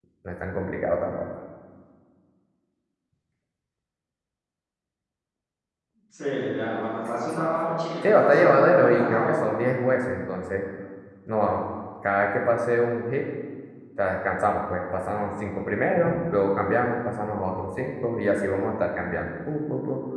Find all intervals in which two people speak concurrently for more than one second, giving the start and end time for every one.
8.0-9.4

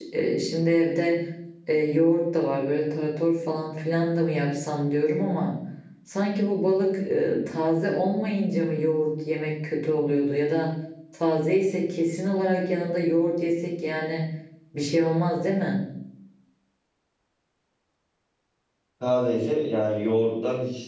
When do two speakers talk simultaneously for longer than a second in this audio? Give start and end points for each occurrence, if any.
none

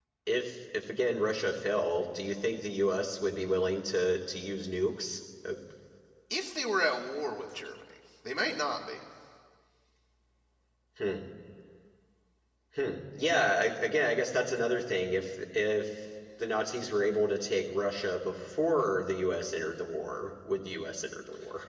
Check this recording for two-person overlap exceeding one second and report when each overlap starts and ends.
none

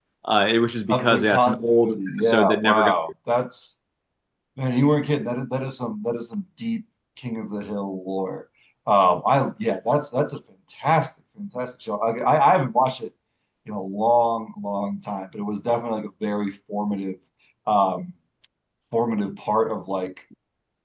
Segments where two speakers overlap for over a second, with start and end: 0.9-2.9

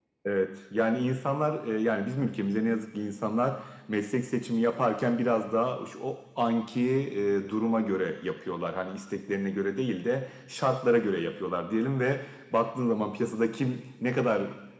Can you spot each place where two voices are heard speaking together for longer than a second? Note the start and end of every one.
none

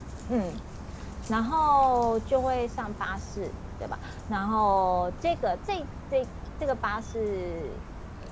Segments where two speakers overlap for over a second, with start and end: none

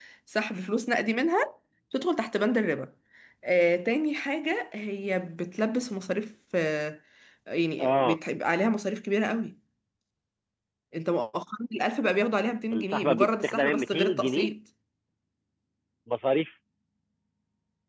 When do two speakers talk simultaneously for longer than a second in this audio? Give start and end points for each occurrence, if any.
12.7-14.5

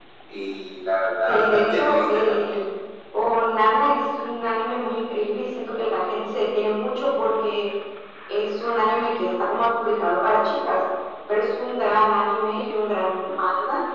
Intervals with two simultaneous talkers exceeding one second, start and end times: 1.3-2.6

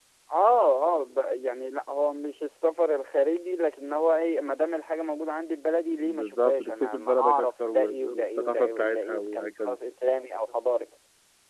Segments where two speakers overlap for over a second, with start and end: 6.0-9.8

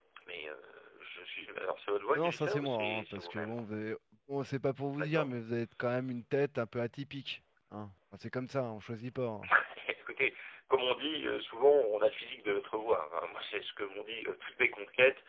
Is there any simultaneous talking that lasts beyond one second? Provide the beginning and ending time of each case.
2.1-3.6

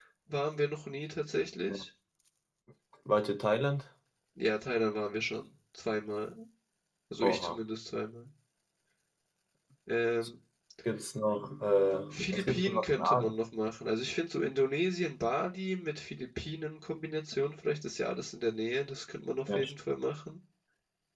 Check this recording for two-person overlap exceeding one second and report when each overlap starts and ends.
12.1-13.3

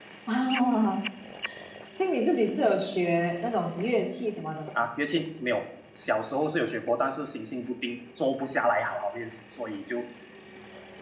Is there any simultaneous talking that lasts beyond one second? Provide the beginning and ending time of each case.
none

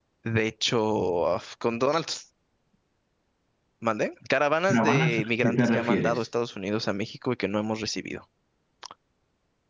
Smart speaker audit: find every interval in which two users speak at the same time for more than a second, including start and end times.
4.7-6.2

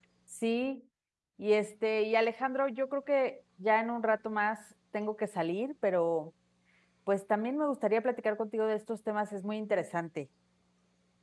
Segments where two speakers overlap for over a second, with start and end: none

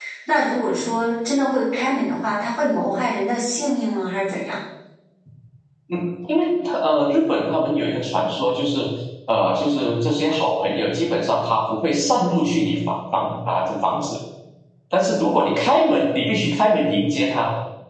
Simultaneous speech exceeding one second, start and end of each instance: none

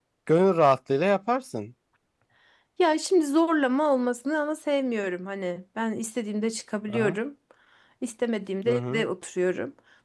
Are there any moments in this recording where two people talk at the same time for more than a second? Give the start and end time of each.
none

